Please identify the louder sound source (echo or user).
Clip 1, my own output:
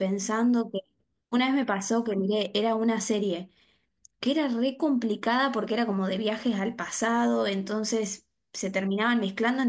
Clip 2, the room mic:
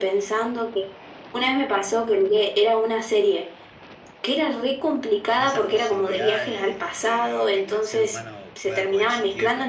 echo